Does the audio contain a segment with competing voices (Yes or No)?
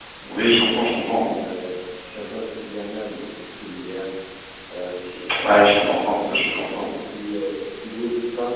Yes